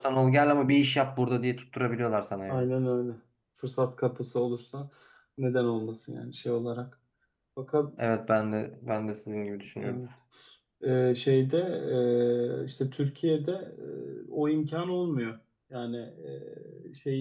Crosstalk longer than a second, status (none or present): none